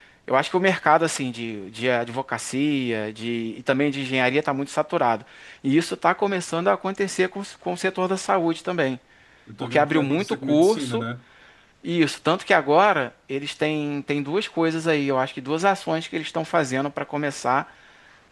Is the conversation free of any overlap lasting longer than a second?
No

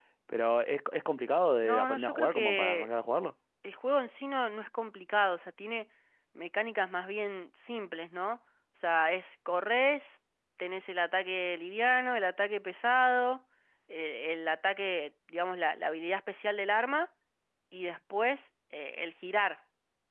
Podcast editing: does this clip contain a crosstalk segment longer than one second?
Yes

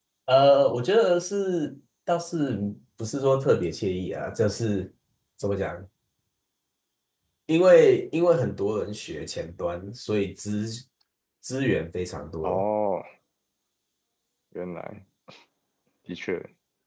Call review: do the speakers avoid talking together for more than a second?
Yes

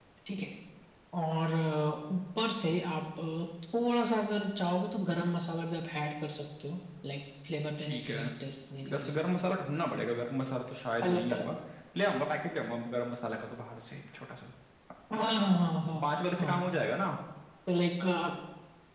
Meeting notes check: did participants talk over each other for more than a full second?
No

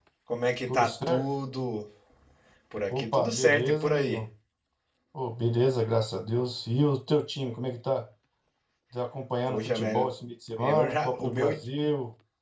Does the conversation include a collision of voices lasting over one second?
Yes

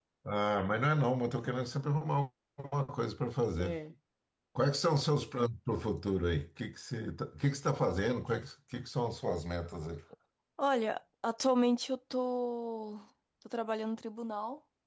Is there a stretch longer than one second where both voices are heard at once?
No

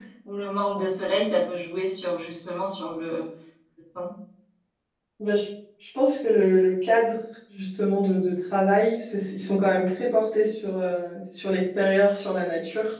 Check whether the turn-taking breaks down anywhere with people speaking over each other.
No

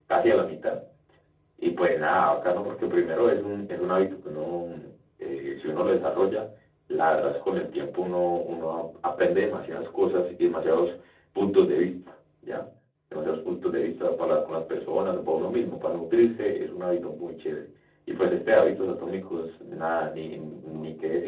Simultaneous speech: No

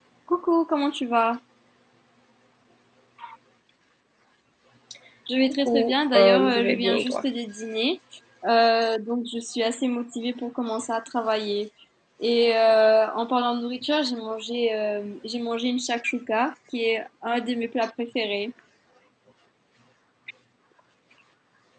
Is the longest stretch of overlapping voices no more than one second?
No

